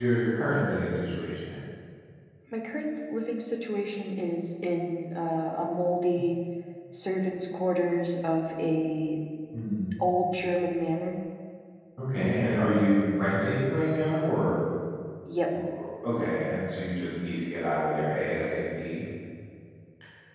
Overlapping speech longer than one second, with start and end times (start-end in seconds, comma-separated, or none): none